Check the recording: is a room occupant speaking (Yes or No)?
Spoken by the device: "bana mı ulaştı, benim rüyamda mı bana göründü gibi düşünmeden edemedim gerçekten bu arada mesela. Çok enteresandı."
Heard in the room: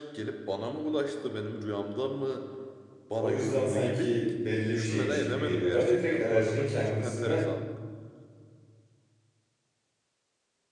Yes